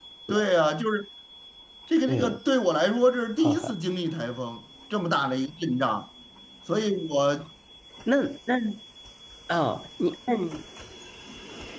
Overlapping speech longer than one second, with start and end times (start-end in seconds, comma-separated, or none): none